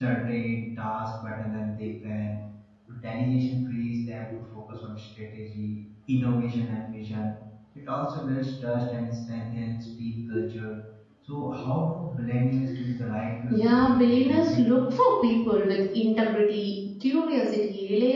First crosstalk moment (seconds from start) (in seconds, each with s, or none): 13.5 s